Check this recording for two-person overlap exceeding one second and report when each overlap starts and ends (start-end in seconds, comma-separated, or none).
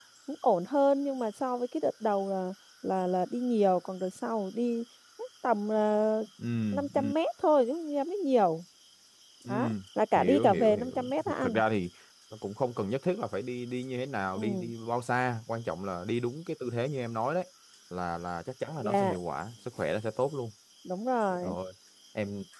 10.2-11.6